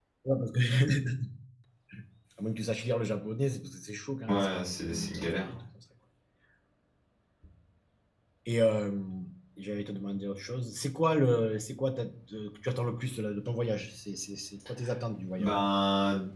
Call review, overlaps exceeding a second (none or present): present